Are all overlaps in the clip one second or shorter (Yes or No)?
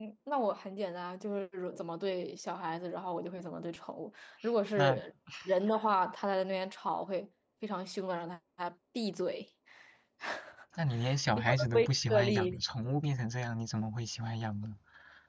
No